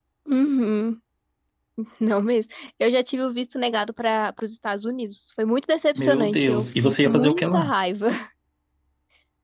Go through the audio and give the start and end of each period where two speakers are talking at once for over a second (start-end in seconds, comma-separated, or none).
6.0-7.7